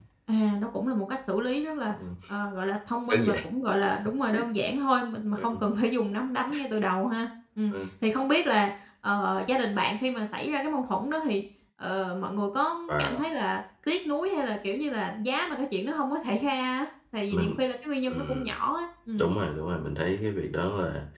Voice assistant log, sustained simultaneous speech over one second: none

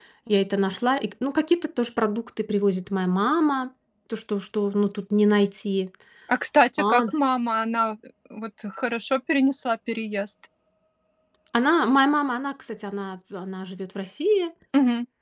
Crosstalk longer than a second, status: none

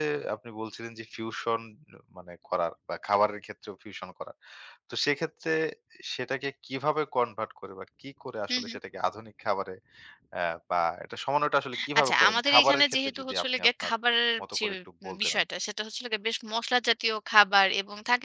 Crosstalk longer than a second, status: present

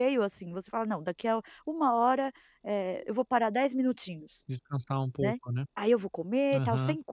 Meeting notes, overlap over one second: none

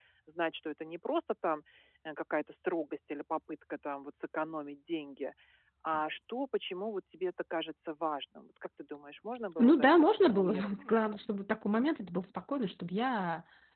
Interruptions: present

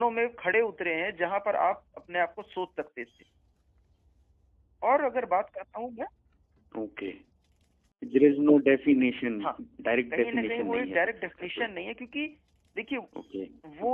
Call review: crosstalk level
present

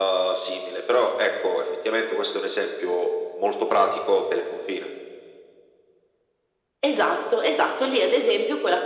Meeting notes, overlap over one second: none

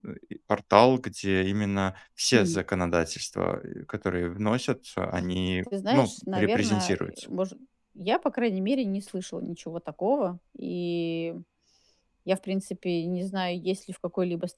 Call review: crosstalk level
present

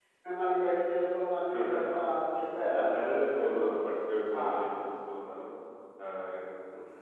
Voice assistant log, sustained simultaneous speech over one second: none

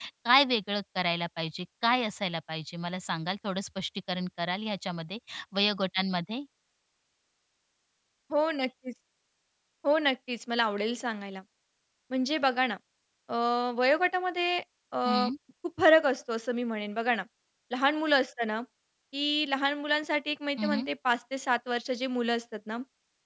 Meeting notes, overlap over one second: none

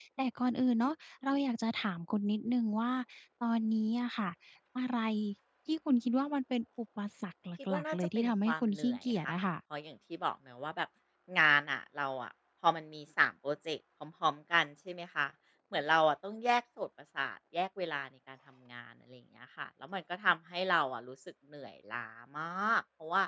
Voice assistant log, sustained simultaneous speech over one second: present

